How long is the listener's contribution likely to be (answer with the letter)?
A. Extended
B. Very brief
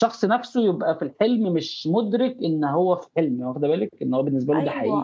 A